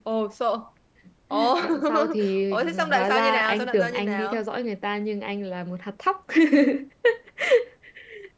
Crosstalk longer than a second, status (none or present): present